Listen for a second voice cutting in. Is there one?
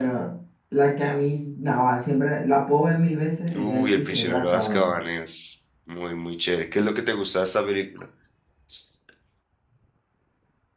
Yes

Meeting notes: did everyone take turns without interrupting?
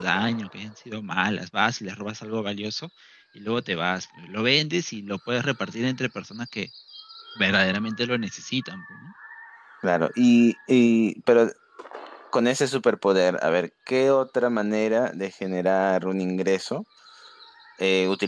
Yes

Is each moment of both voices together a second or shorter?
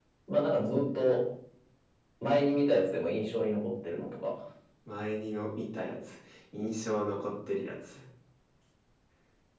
Yes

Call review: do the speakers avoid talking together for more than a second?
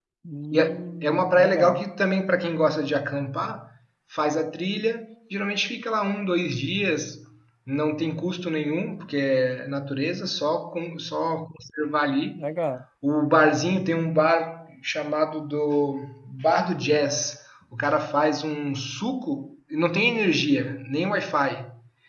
No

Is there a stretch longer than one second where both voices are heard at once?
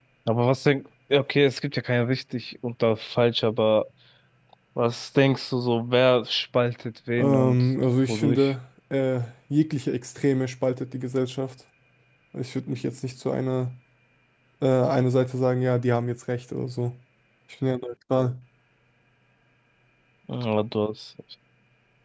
Yes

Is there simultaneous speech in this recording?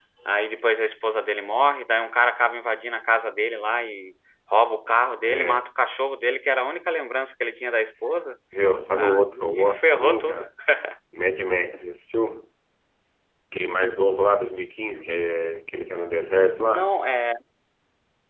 Yes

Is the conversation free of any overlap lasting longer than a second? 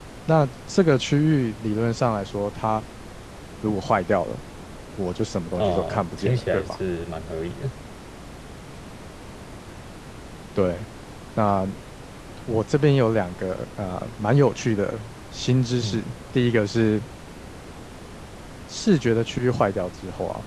No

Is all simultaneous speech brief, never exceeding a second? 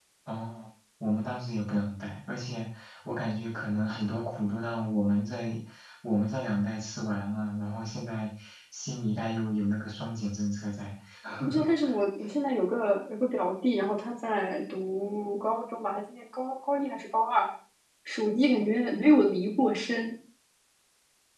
Yes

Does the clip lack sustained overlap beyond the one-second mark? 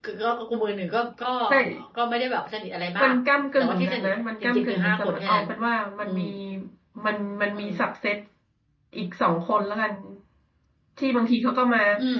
No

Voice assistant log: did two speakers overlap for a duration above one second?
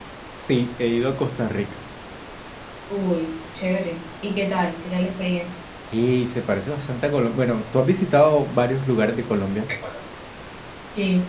No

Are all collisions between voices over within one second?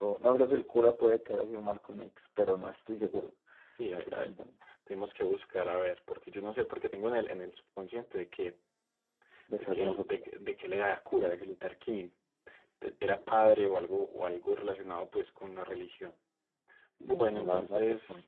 No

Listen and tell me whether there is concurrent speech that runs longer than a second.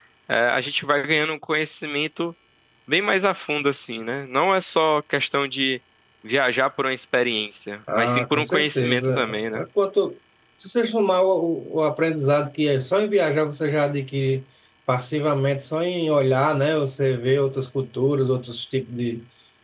Yes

